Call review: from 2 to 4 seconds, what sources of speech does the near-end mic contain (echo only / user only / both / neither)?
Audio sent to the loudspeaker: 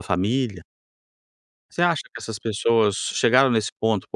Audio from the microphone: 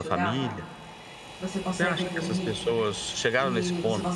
both